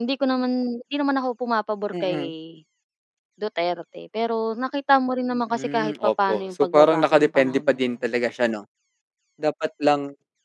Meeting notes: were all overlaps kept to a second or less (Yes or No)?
No